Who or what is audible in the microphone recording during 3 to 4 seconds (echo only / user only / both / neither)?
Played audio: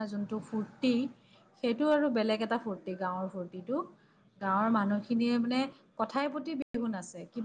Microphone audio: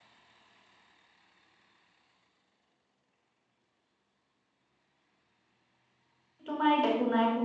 neither